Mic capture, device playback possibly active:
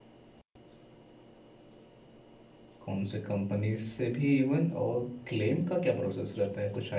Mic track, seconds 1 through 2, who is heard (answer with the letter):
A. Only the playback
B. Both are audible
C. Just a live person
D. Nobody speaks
D